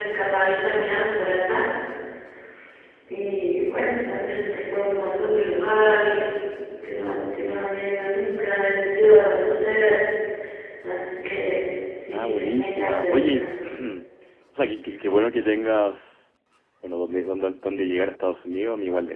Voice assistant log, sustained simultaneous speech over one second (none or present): present